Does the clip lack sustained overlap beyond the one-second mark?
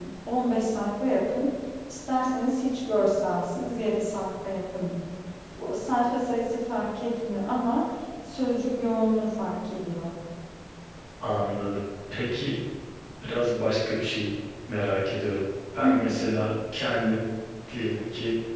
Yes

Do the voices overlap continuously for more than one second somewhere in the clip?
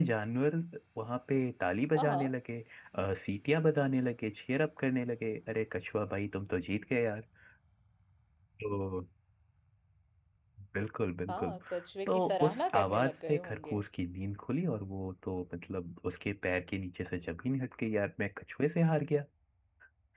Yes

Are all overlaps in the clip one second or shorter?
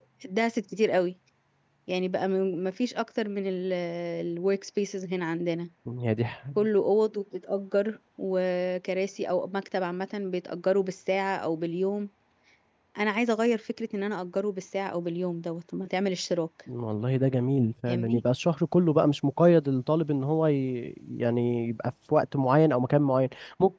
Yes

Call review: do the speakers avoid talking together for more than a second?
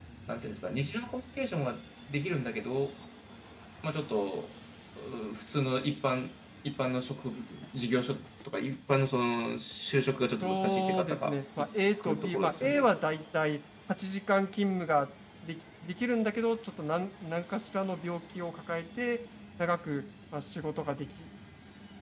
No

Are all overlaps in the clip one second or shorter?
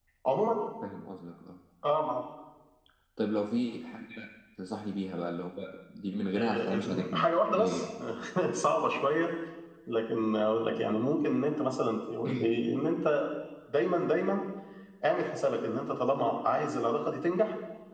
No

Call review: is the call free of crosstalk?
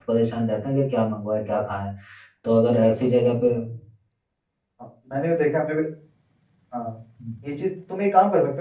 Yes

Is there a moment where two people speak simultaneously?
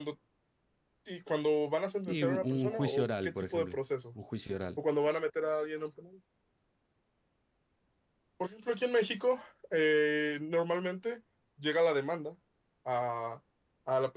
Yes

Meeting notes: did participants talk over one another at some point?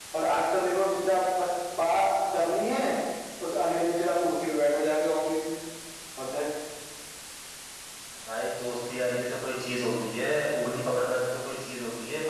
No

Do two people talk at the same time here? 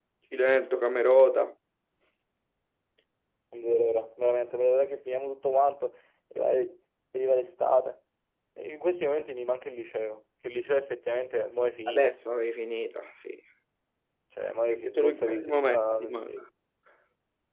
Yes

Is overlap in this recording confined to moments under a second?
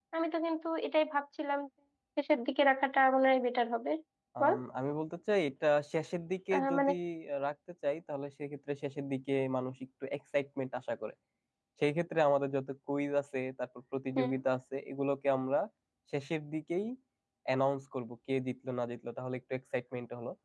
Yes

